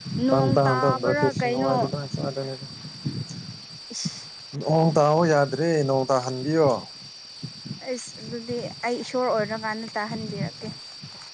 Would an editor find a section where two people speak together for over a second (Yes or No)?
Yes